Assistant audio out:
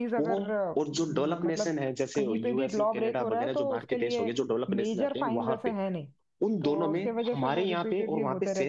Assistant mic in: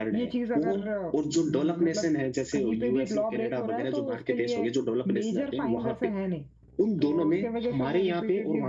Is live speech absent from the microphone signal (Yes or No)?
Yes